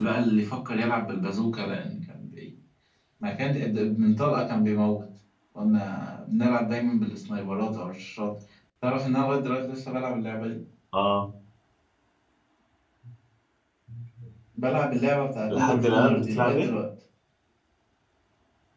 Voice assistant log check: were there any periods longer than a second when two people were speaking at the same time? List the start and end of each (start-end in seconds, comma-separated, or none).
15.5-16.7